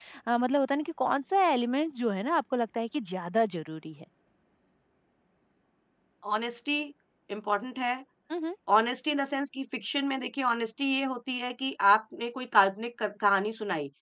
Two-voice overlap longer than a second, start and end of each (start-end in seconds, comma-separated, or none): none